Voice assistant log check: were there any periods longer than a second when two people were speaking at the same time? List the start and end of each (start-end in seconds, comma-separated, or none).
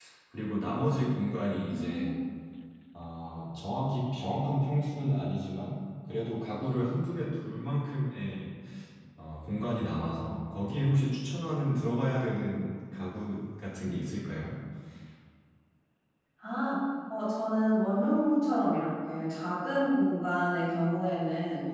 none